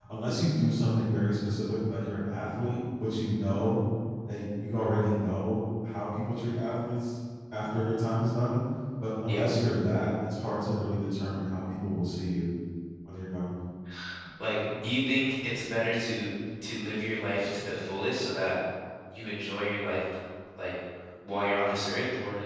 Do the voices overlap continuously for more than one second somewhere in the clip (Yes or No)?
No